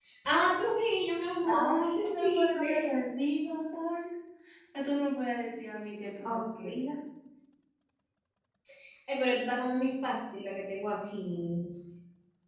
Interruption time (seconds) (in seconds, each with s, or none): 1.5 s